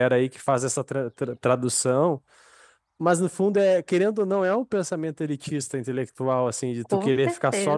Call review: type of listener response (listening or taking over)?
listening